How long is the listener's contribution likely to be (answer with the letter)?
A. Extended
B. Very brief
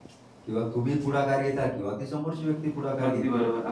A